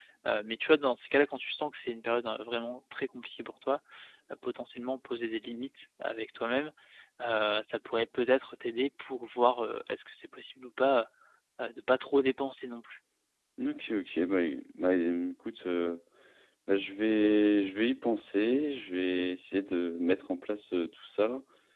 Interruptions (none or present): none